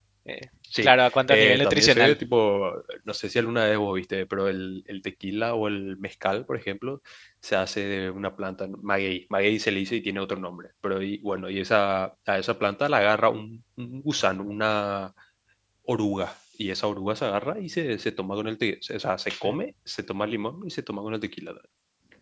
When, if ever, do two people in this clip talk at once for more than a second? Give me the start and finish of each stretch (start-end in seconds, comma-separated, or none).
0.8-2.2